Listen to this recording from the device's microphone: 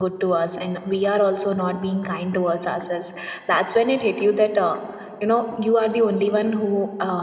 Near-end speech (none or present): present